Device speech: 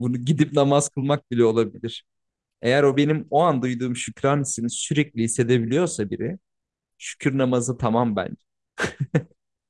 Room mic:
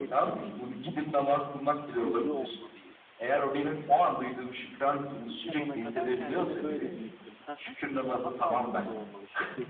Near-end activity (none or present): present